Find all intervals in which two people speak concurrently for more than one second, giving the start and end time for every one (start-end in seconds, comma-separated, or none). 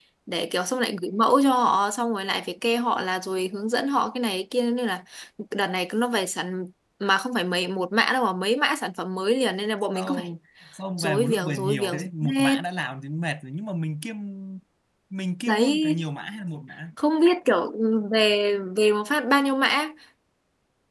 11.0-12.5